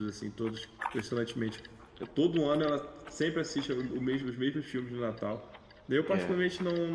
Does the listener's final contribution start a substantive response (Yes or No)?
No